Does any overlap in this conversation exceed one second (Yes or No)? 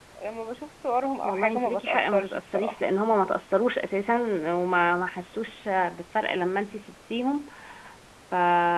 Yes